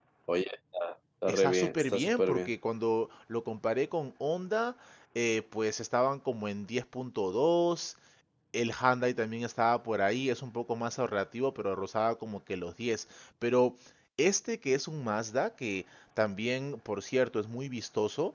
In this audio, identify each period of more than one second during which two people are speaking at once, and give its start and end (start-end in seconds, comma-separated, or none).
1.3-2.5